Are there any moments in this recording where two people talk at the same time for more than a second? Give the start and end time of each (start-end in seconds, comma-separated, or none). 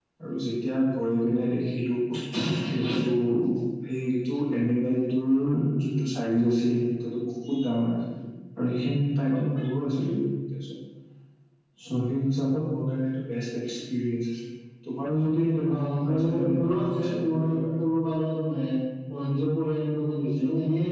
15.7-17.8